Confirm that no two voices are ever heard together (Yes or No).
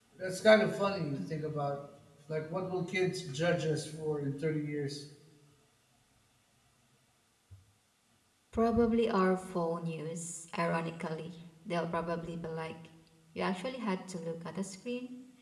Yes